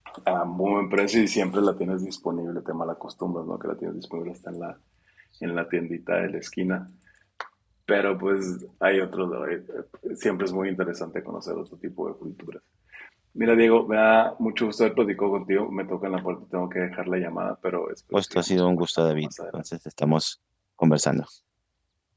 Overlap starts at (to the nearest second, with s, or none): 18 s